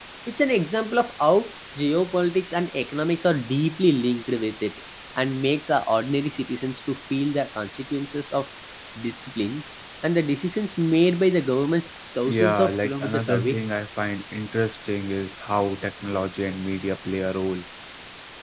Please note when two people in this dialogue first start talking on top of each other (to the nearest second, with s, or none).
12 s